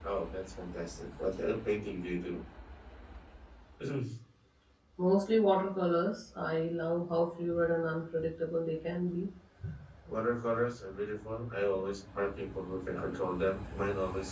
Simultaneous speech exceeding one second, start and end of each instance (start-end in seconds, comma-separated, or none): none